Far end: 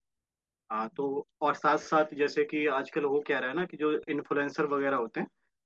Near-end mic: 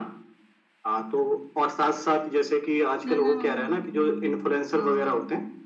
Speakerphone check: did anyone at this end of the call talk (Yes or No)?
Yes